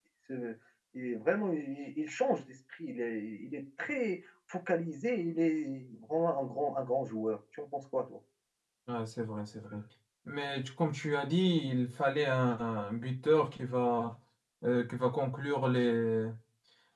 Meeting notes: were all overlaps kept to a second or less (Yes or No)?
Yes